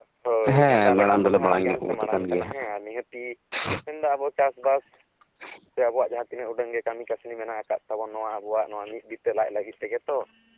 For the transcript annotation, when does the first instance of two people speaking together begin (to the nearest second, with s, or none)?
1 s